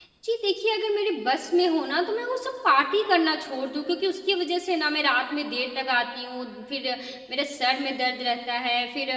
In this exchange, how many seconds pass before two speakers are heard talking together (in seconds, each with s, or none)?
none